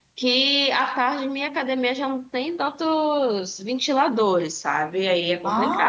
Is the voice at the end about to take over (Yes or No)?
Yes